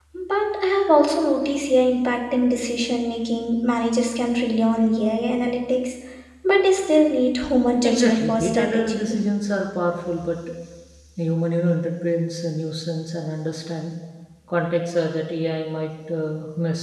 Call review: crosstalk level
present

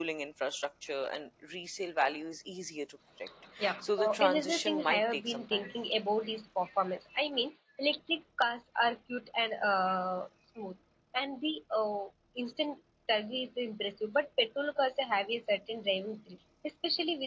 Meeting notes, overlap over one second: present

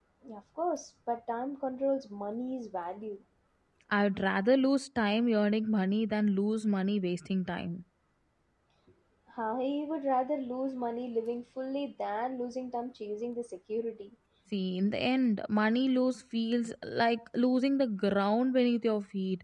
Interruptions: none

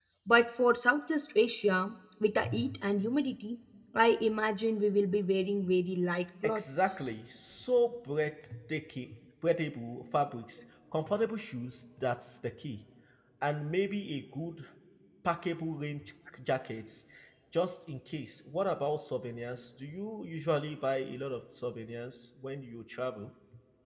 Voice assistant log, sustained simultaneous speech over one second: none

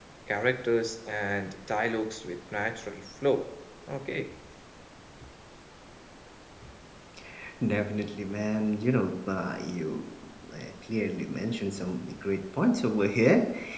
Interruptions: none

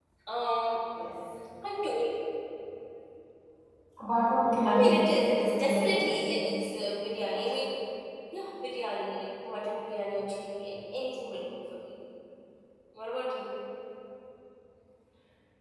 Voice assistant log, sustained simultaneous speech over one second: present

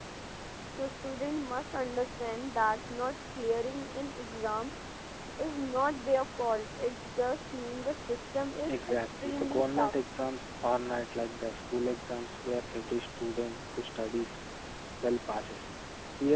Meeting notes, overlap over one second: present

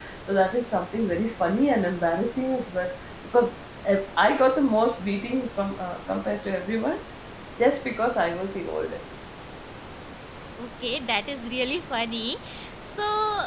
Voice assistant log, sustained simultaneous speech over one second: none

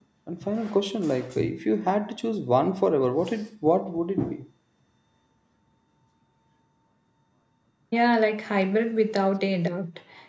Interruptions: none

